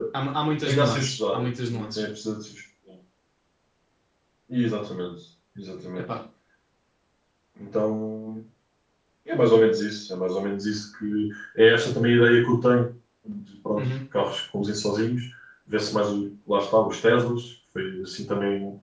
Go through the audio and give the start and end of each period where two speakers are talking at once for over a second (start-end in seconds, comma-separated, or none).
0.6-2.0